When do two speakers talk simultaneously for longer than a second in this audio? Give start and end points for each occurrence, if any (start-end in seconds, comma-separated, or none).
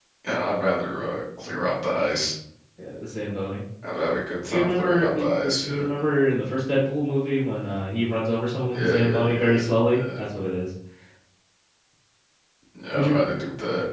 4.5-5.8, 8.7-10.2